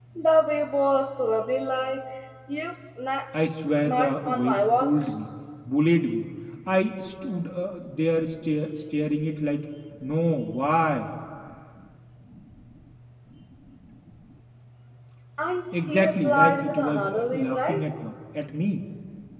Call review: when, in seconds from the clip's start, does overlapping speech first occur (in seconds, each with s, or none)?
3.9 s